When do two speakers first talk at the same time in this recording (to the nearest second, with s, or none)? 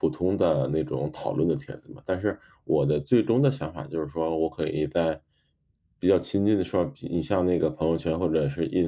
none